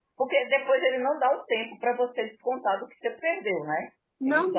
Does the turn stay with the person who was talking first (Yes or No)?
No